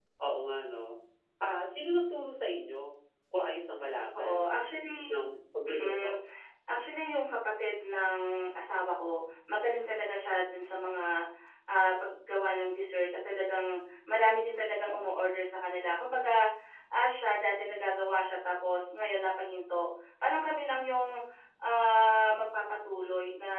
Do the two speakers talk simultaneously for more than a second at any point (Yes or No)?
No